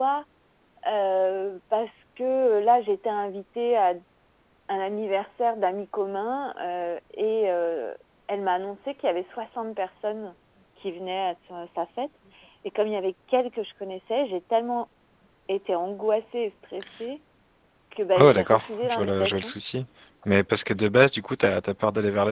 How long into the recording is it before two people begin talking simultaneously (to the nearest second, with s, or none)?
18 s